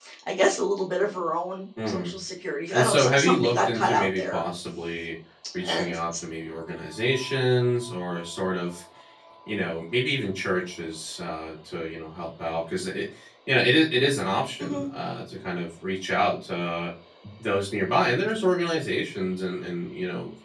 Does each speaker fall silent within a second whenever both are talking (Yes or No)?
No